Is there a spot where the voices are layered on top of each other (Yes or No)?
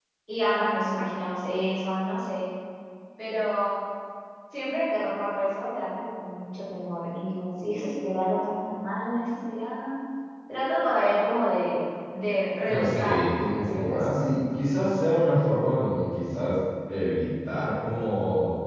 Yes